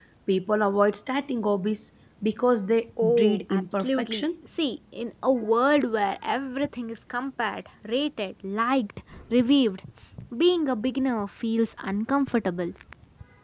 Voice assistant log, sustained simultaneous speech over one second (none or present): present